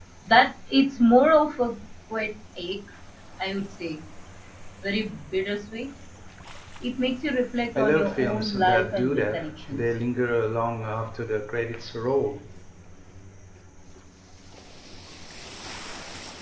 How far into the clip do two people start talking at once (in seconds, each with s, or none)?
7.8 s